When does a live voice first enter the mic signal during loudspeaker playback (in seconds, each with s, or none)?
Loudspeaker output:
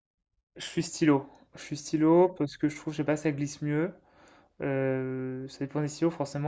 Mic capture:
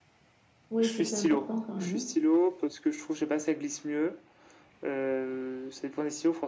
0.7 s